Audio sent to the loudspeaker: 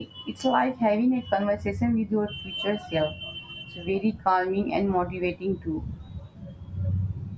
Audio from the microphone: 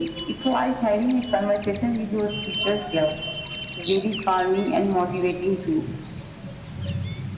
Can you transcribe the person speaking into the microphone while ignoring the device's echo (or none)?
none